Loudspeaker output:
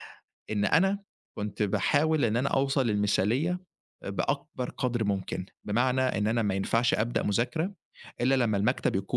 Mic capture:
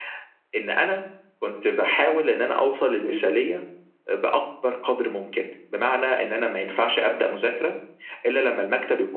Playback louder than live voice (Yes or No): Yes